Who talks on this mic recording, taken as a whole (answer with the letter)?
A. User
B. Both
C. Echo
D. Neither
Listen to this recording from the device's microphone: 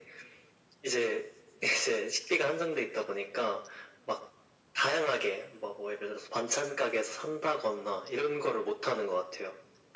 C